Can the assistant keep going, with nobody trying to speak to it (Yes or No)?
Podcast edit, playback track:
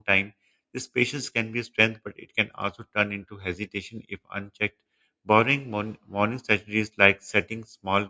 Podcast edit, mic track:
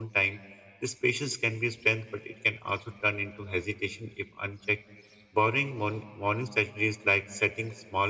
Yes